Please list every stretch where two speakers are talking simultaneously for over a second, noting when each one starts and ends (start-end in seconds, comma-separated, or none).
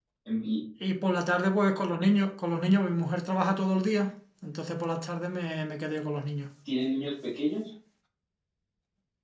none